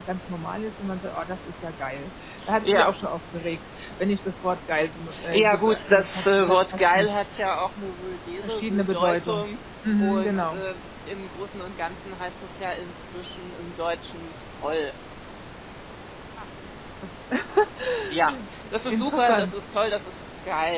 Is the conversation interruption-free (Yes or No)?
No